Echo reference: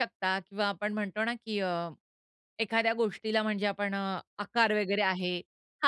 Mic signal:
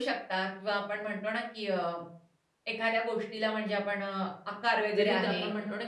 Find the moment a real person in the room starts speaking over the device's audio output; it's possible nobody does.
5.0 s

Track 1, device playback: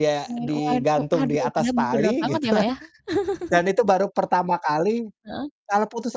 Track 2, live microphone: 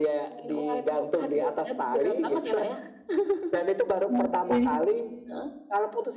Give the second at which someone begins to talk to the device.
4.2 s

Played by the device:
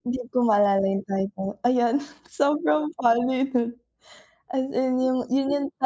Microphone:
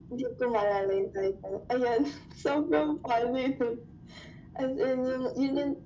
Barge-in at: none

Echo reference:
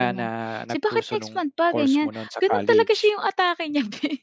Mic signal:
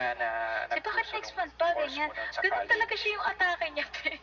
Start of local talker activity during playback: none

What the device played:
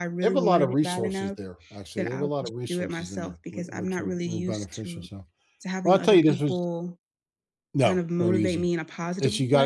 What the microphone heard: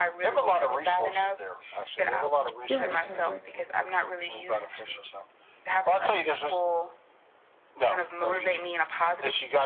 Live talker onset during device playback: 2.7 s

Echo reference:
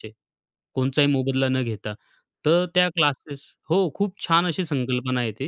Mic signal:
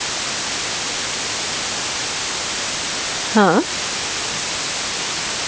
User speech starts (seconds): 3.3 s

